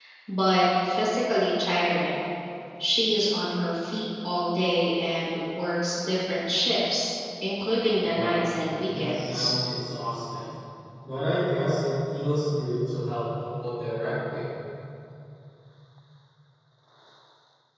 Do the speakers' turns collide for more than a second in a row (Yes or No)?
Yes